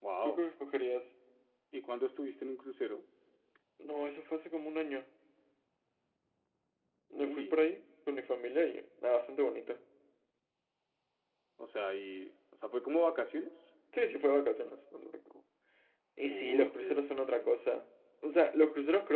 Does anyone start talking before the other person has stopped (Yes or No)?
Yes